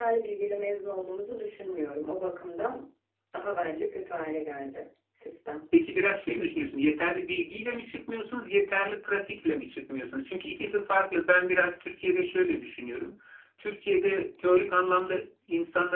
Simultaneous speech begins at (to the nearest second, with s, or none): none